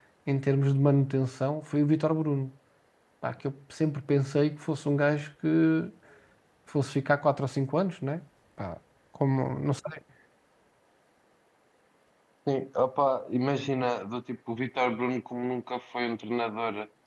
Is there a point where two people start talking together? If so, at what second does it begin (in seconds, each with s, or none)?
none